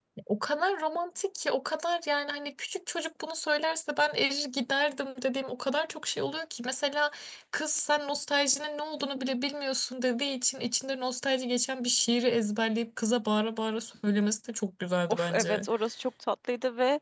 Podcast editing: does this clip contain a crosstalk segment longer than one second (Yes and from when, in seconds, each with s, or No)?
No